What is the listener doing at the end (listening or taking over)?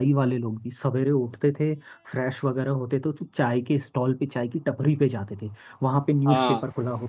listening